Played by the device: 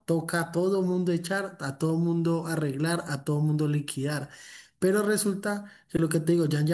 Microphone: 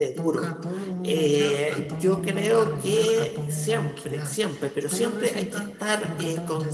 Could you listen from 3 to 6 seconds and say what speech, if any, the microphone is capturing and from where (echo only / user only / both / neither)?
both